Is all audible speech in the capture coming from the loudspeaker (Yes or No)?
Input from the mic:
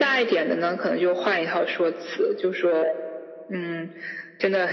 Yes